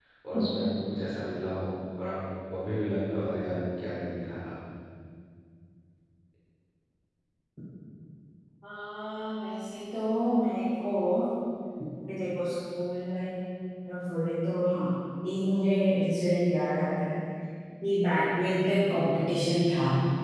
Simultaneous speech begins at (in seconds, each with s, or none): none